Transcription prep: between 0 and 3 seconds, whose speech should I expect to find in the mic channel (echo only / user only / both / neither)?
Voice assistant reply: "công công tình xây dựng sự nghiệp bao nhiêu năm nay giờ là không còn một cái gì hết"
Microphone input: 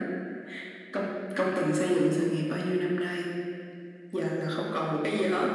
echo only